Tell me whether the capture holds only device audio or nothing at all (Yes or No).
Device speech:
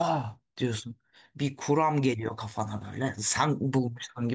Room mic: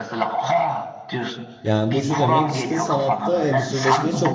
No